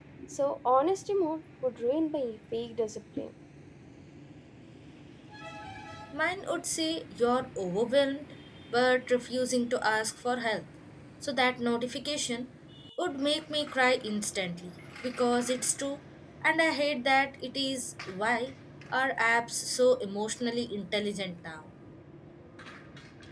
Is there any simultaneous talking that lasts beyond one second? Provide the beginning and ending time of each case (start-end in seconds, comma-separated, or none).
none